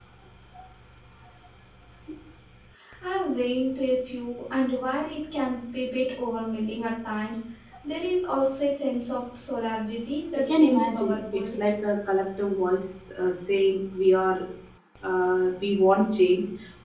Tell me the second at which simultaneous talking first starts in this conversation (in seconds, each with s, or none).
10.3 s